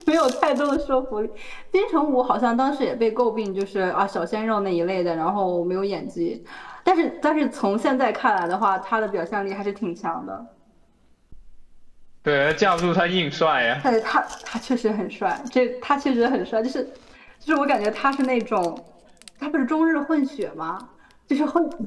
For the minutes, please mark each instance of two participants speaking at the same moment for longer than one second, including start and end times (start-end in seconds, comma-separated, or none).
none